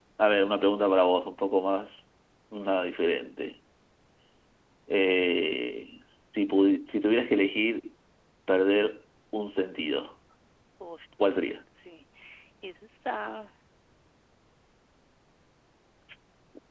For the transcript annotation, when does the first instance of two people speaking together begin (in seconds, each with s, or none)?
none